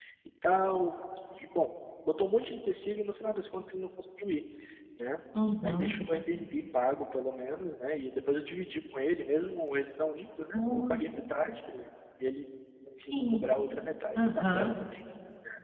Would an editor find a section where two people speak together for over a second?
No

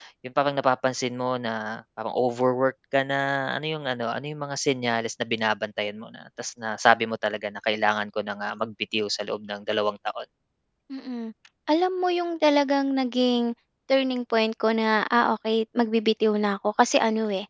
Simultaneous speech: No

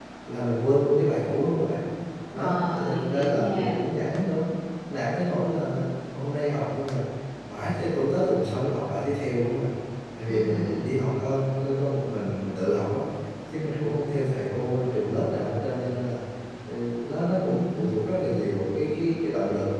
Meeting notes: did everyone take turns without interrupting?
No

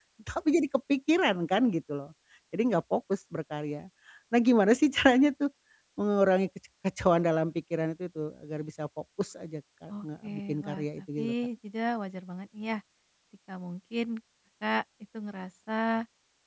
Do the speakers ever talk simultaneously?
Yes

